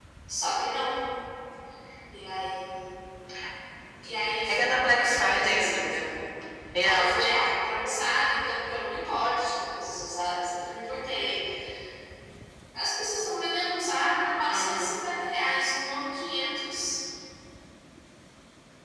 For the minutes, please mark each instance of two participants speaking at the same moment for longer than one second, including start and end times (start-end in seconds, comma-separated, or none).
4.5-6.1